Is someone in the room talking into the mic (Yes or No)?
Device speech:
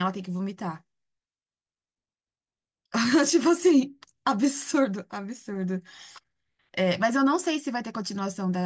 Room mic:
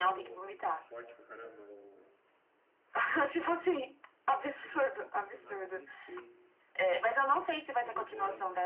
Yes